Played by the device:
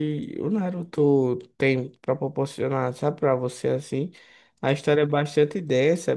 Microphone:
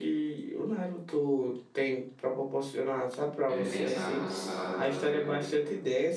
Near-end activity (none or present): present